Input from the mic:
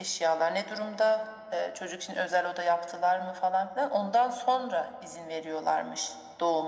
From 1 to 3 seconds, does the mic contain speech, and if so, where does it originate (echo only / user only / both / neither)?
echo only